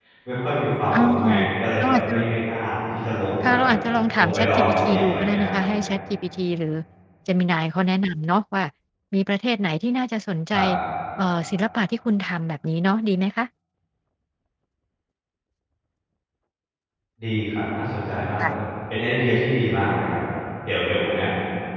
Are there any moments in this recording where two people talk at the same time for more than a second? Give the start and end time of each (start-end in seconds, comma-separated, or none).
4.2-5.5